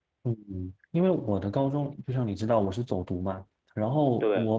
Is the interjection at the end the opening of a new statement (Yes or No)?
No